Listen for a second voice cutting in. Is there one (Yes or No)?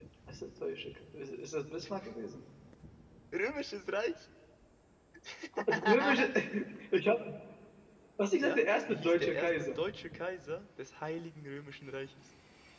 Yes